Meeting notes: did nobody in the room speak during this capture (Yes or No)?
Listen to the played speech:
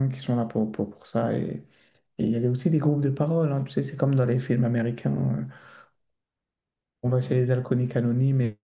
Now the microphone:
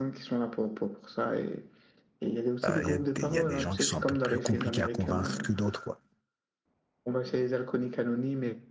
No